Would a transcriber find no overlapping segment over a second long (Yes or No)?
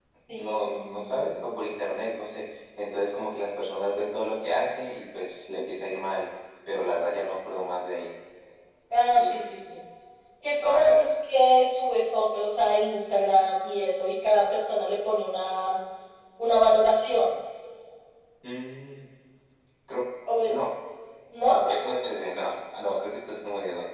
No